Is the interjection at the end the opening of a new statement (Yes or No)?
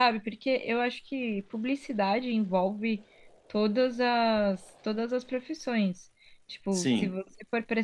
No